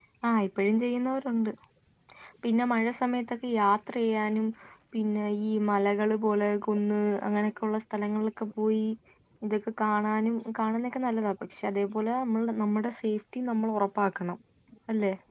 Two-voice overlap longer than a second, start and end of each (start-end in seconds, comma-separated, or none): none